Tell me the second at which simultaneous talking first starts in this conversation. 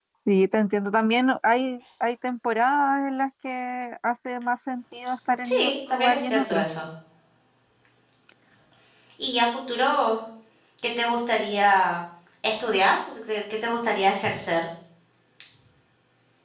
5.4 s

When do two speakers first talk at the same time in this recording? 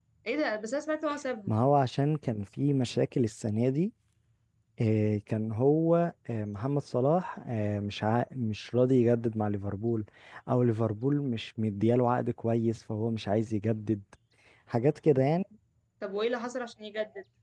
none

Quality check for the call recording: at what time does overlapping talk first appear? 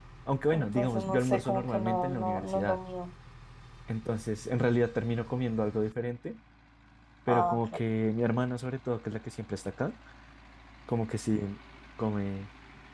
0.5 s

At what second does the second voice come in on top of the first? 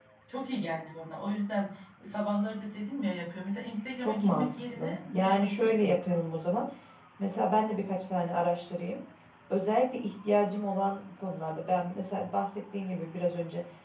4.0 s

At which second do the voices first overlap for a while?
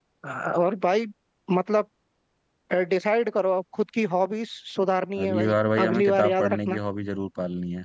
5.2 s

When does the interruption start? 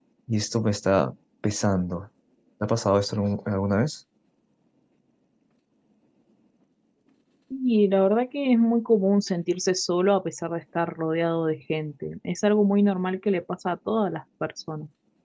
none

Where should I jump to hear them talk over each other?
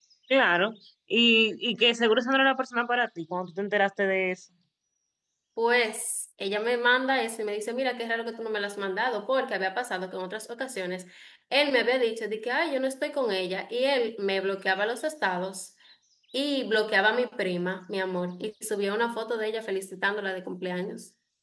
none

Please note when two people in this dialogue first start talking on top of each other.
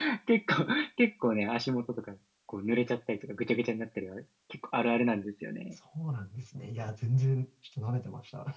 none

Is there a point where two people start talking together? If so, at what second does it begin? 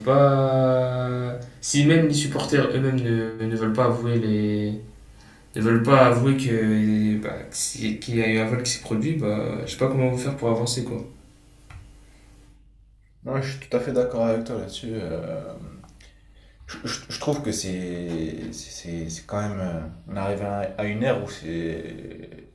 none

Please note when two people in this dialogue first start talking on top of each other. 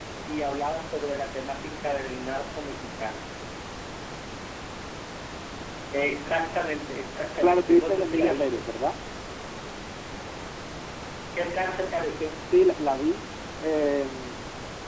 7.4 s

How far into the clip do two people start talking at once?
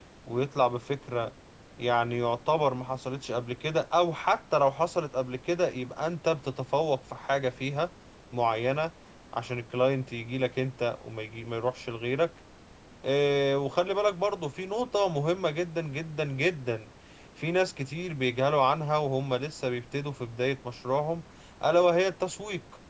none

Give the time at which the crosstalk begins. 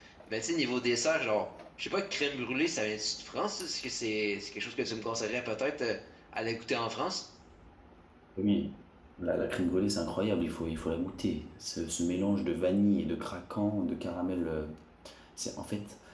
none

